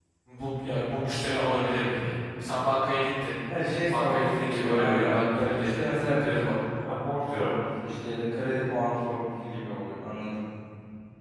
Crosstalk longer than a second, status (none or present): present